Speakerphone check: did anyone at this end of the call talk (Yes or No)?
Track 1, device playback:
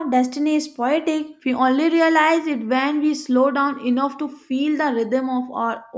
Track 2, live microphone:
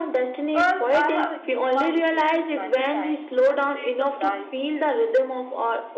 Yes